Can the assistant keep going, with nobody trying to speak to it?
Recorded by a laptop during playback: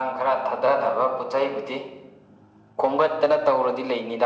Yes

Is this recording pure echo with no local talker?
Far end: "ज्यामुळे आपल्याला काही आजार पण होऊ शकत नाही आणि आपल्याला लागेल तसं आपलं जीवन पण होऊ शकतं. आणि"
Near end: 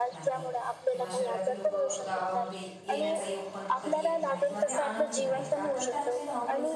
No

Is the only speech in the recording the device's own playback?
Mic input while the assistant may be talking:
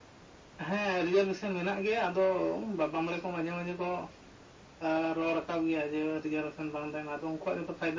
Yes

